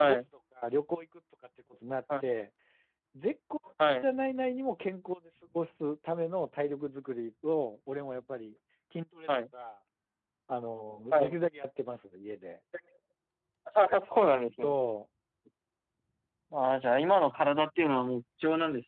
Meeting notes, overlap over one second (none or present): none